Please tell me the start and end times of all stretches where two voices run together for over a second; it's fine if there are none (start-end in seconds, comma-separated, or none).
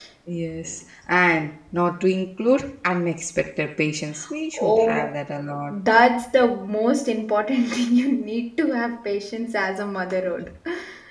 none